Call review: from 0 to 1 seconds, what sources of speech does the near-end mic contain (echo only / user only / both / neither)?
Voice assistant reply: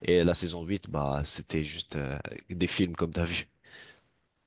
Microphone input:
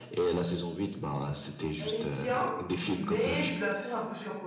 echo only